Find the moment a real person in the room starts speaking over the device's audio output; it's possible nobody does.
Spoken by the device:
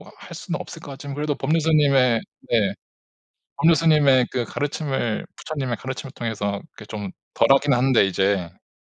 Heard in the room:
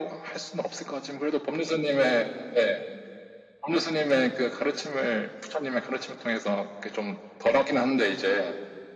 none

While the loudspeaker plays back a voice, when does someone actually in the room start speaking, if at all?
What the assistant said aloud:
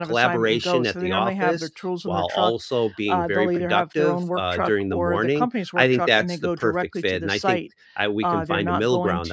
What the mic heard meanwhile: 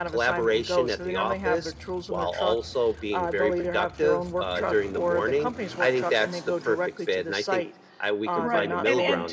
8.3 s

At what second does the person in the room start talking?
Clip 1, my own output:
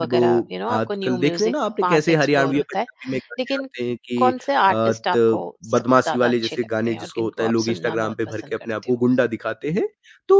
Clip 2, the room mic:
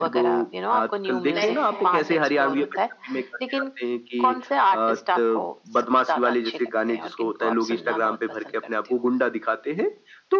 1.3 s

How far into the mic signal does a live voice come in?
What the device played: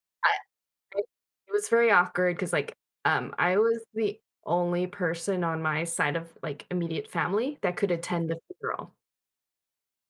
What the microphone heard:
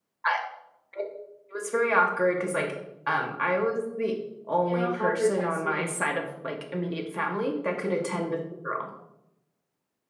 4.6 s

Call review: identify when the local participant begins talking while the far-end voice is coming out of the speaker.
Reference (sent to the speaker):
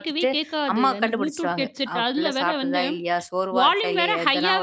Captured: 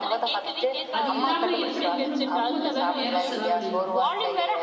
1.0 s

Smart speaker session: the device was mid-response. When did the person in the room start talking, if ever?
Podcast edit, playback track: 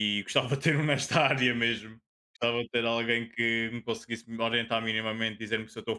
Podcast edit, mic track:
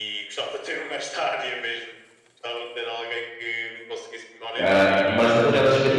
4.6 s

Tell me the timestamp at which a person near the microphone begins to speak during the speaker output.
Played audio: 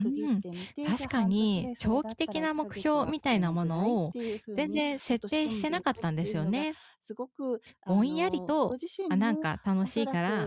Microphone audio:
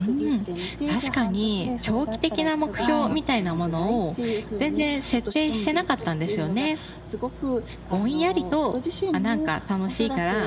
2.8 s

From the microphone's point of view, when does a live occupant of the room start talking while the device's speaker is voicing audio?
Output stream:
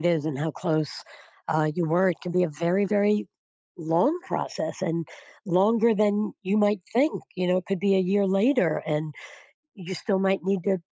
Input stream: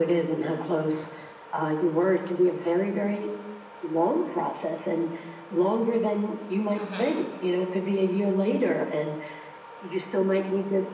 6.8 s

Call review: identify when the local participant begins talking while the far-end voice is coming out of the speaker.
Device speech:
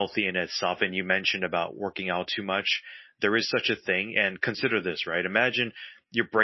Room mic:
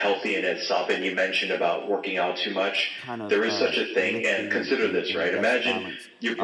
3.0 s

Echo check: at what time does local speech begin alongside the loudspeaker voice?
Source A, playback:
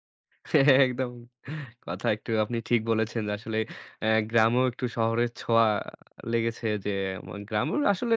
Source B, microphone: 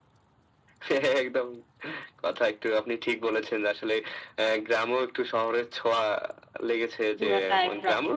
7.2 s

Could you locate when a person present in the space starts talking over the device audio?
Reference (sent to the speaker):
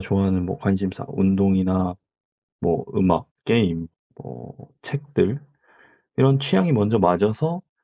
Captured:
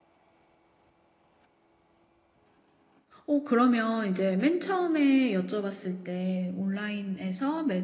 3.2 s

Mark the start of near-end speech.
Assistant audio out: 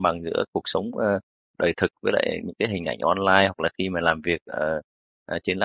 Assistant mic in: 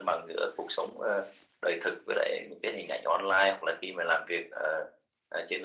none

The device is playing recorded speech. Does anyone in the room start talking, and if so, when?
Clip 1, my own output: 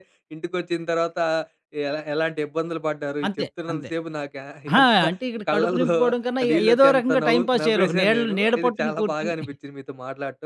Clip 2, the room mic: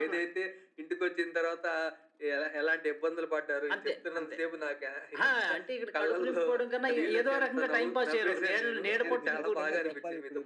9.0 s

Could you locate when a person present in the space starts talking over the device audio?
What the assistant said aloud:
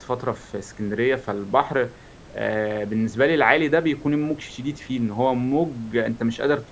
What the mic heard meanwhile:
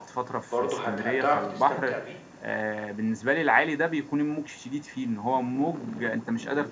0.5 s

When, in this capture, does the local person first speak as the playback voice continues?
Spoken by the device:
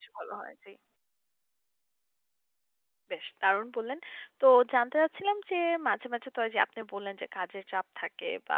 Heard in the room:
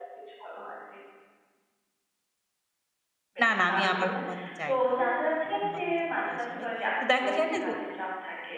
3.4 s

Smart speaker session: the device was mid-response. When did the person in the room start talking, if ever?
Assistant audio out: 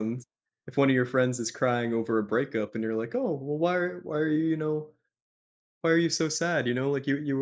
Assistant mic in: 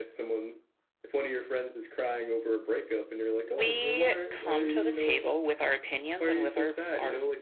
3.4 s

